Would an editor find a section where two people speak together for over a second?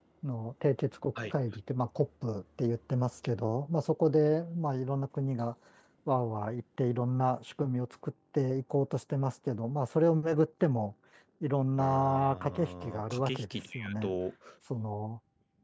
Yes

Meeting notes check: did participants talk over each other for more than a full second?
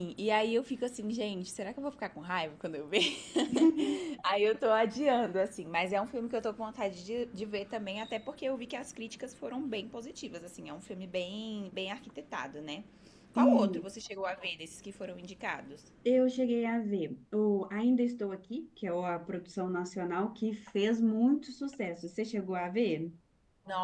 No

